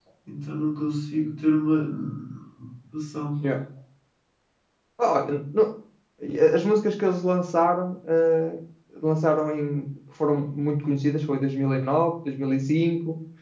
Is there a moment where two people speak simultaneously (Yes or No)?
No